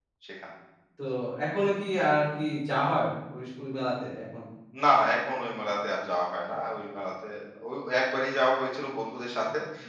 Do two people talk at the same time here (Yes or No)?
No